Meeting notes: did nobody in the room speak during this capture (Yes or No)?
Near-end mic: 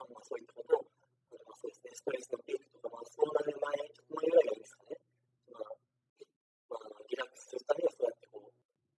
Yes